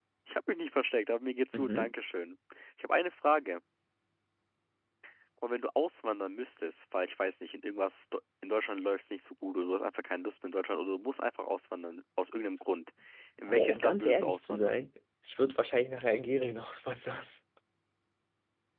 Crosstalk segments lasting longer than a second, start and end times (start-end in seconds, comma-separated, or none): 13.5-14.8